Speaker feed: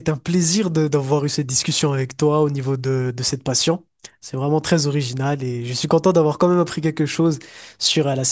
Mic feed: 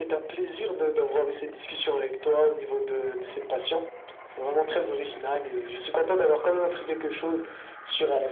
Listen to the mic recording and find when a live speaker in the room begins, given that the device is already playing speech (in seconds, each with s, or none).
none